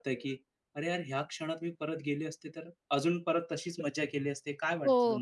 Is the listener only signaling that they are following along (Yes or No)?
No